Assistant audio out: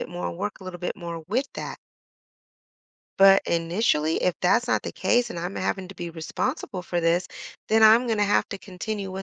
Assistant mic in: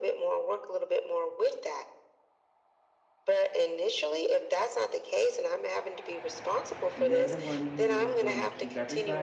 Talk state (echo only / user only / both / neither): both